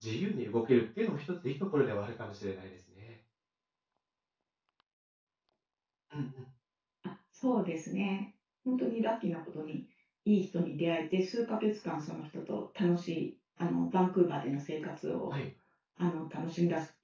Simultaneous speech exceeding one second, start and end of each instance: none

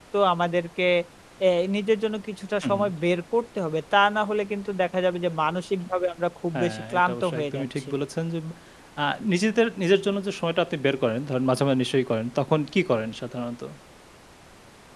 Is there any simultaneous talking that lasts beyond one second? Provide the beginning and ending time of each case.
6.5-7.9

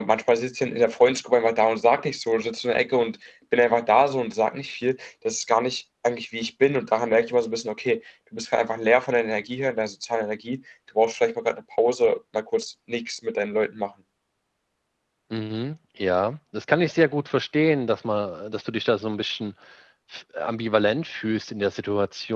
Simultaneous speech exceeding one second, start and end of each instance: none

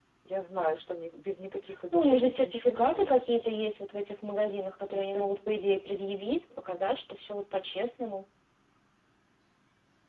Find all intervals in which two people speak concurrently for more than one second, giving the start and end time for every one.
1.9-3.6

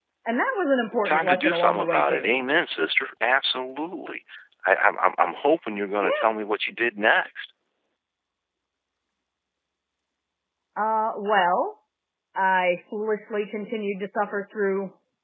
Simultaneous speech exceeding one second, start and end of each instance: 1.0-2.3

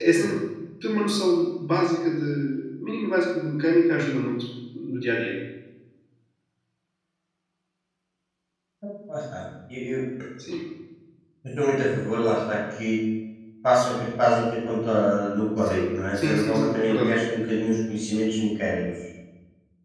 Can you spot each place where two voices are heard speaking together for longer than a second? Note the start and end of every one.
15.6-17.1

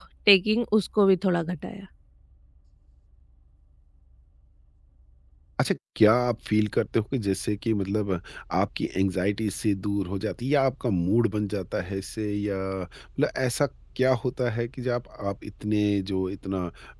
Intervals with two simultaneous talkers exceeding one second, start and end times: none

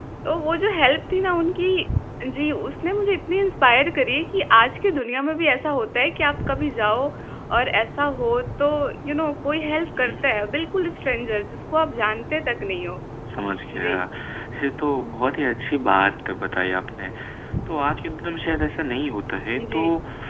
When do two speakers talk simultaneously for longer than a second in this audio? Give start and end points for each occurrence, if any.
none

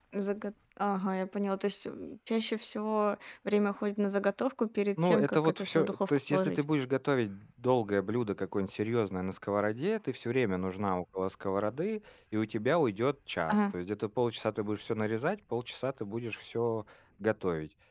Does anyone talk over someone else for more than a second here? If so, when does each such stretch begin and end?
5.0-6.6

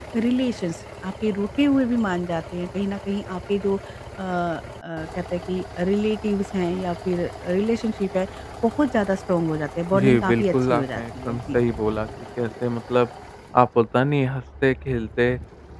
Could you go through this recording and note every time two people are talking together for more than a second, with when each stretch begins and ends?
9.9-11.6

